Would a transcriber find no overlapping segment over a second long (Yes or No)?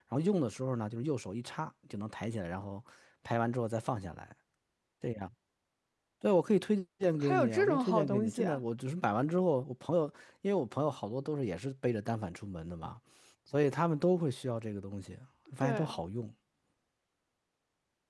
No